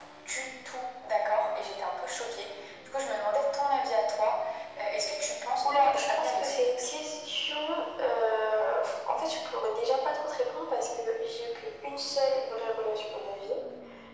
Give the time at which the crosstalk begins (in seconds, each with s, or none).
5.6 s